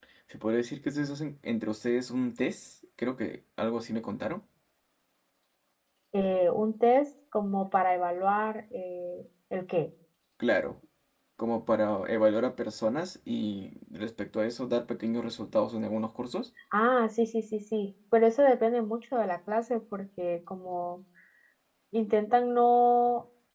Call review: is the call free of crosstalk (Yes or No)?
Yes